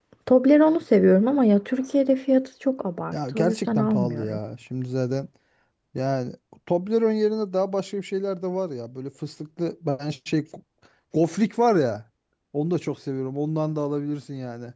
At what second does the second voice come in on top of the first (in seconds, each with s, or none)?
3.1 s